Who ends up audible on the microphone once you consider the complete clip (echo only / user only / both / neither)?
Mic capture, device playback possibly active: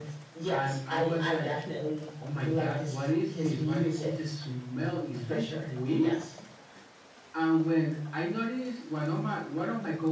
echo only